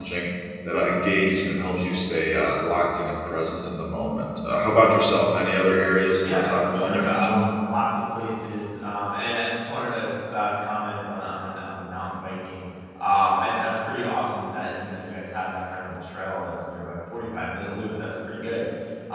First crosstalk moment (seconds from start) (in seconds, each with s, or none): 6.2 s